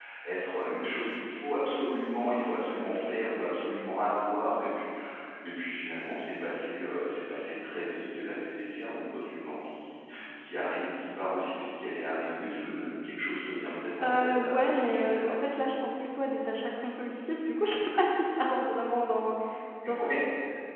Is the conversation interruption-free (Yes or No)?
No